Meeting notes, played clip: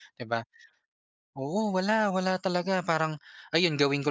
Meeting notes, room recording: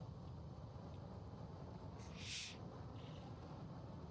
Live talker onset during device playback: none

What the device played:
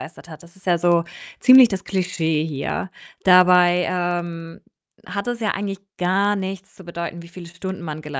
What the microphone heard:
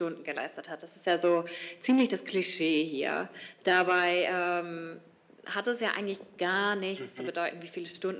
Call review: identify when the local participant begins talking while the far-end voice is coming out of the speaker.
7.0 s

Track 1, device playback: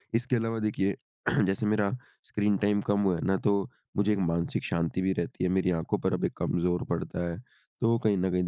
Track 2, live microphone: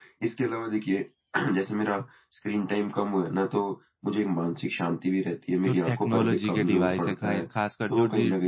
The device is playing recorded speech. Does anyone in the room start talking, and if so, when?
5.6 s

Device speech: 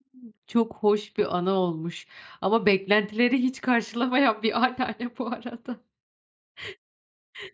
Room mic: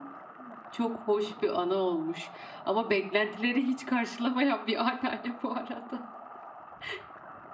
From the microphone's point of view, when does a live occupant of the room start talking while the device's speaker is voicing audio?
none

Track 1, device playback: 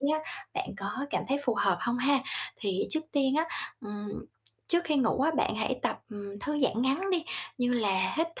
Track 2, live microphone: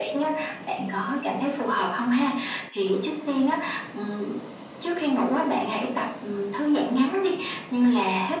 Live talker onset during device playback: none

